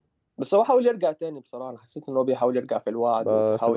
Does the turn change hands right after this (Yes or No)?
Yes